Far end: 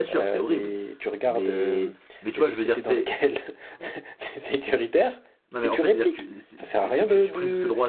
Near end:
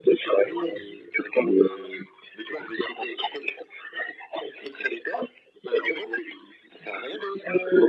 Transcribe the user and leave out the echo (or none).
oui, oui.